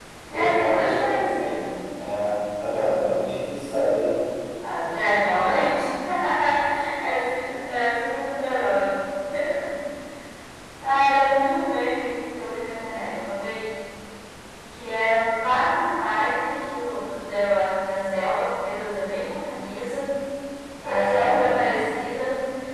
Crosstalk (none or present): present